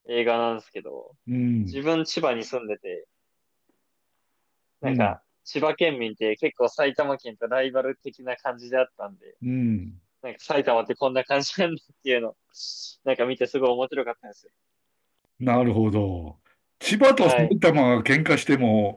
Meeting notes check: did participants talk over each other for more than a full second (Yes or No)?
No